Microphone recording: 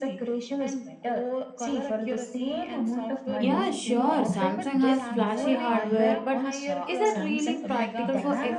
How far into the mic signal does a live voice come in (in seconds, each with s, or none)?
3.4 s